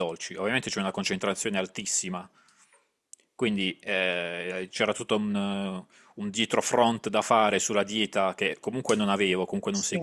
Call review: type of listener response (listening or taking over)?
listening